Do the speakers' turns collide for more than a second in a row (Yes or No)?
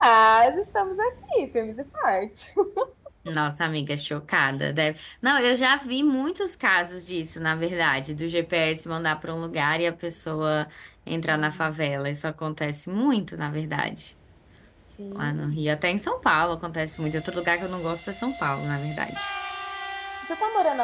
No